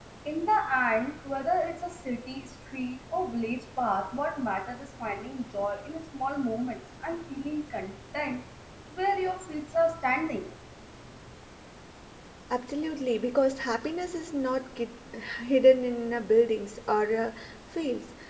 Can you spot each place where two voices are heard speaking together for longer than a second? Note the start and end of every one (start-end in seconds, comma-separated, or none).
none